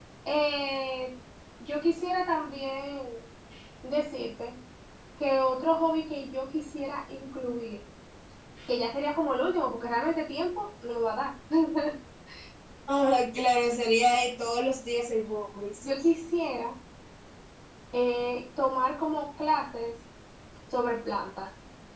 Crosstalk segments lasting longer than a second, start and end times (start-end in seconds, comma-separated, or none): none